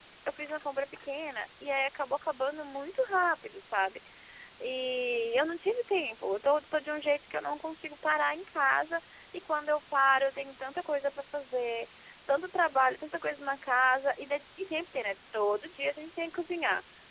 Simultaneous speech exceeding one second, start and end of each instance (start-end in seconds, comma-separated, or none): none